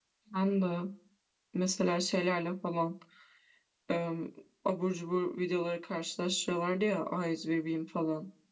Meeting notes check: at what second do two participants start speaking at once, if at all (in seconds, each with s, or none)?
none